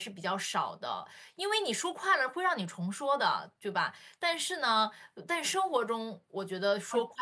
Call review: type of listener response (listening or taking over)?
listening